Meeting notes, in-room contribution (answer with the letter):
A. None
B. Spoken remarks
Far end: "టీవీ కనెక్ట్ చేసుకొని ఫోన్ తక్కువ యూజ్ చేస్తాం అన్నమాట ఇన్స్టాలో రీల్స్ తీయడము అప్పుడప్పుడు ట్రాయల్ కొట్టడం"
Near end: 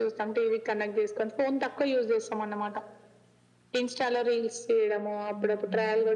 B